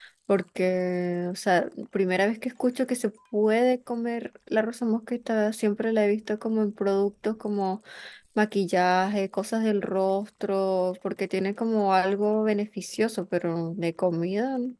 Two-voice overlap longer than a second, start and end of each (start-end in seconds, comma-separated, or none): none